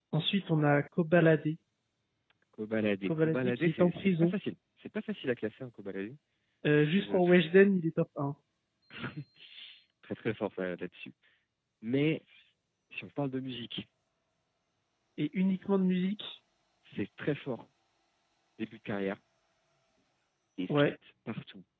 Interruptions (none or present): present